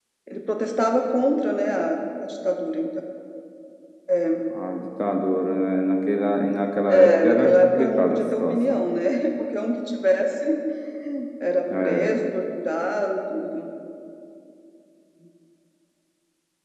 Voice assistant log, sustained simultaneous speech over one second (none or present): present